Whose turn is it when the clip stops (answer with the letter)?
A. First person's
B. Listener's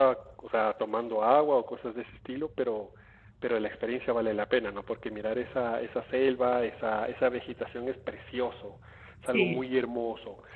A